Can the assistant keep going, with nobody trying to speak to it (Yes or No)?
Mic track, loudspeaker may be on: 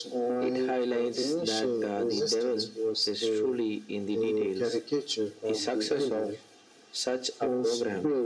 Yes